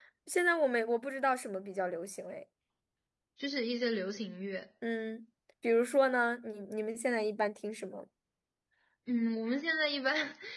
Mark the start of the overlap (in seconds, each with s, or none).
none